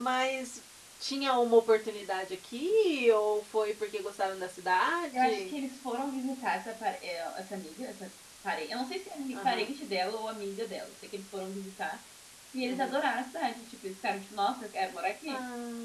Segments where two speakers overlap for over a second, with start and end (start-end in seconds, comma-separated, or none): none